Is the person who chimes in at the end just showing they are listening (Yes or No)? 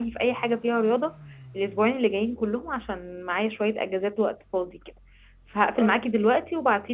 Yes